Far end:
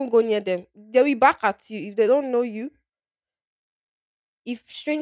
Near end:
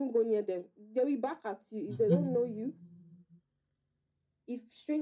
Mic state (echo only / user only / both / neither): both